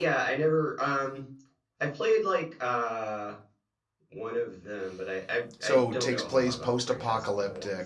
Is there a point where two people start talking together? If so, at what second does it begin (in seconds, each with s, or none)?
5.6 s